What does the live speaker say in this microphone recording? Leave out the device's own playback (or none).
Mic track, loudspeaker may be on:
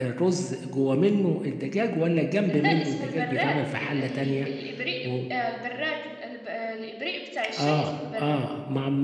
لا اسمه البراد ال- ال- الإبريق آه، البراد الب- آه، الإبريق بتاع الشاي اسمه البراد